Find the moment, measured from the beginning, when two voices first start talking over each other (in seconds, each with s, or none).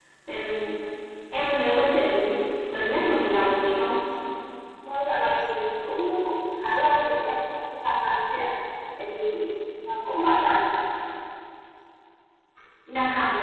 none